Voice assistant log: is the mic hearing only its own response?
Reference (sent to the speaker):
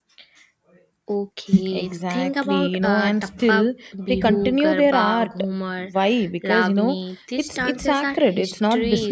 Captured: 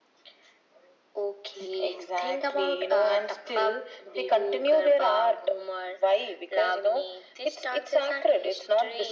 Yes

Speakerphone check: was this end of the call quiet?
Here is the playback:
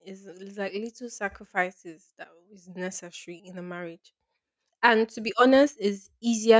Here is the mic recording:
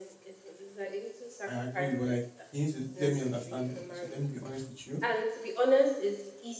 No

